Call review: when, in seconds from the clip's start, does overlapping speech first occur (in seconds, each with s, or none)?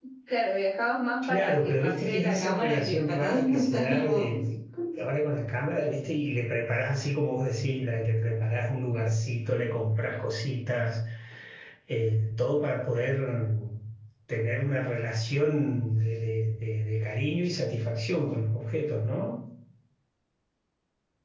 1.3 s